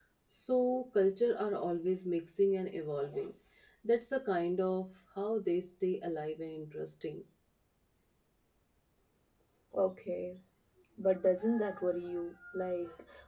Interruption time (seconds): none

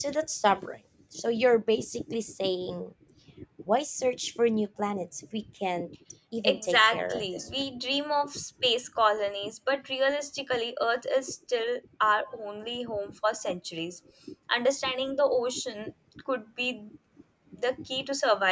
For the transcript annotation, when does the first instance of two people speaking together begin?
6.4 s

